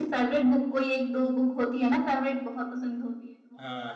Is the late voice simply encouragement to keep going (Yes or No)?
No